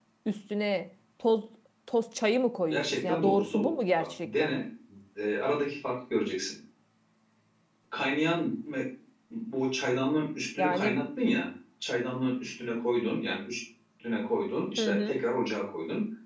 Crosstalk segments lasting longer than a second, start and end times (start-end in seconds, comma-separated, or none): 2.7-4.5